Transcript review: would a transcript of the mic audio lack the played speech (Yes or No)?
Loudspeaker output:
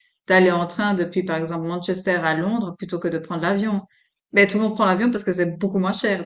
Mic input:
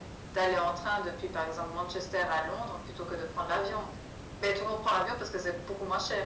No